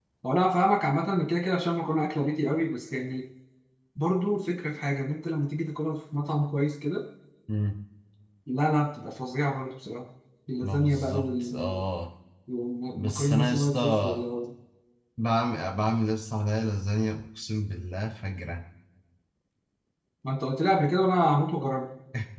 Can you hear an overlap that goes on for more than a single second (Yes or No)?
Yes